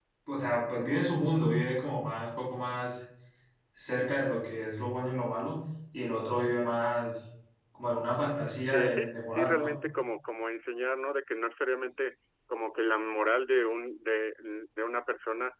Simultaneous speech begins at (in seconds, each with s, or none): 8.4 s